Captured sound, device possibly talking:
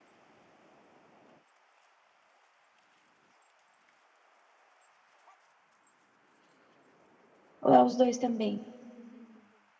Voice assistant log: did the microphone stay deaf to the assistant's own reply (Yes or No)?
Yes